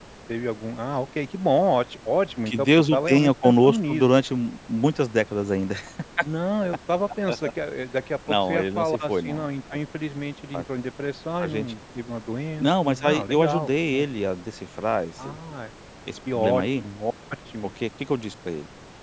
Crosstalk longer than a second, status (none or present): present